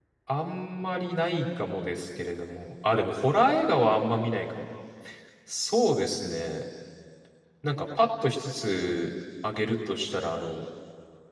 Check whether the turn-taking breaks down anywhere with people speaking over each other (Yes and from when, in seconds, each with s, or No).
No